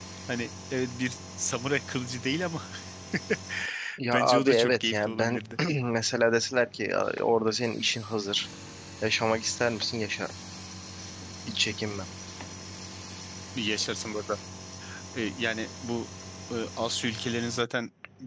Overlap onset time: 4.1 s

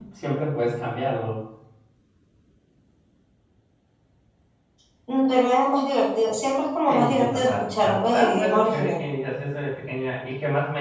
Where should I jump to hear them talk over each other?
6.9 s

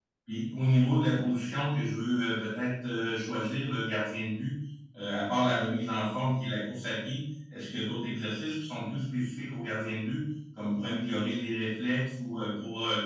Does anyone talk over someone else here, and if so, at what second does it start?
none

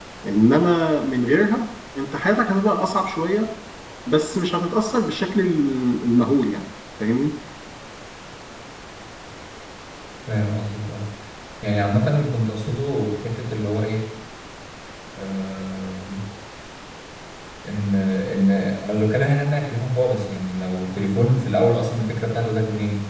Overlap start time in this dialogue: none

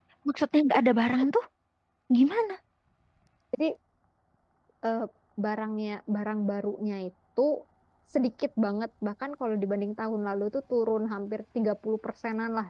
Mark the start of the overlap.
none

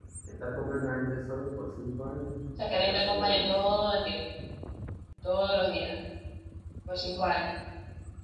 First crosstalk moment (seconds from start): 2.6 s

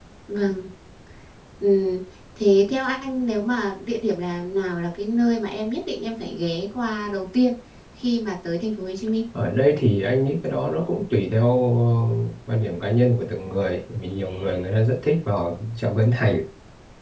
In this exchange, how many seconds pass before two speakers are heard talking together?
none

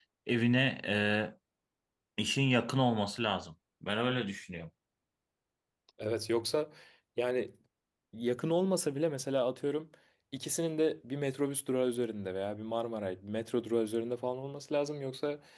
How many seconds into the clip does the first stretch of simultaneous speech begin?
none

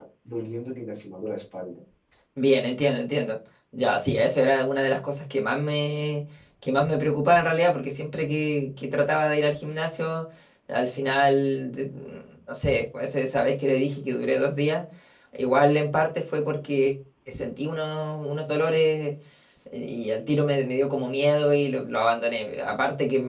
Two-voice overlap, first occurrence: none

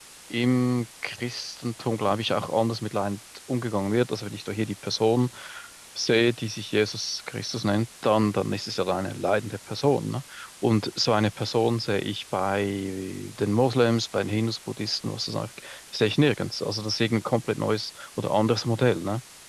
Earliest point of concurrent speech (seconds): none

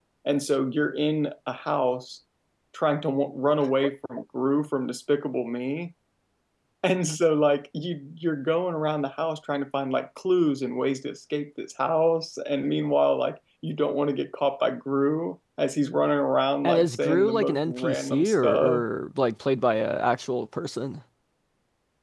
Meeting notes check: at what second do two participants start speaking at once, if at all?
16.6 s

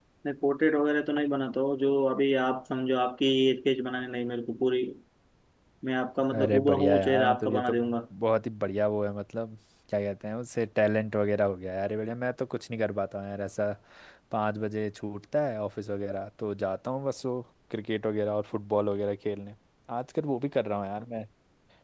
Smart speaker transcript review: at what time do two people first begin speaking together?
6.4 s

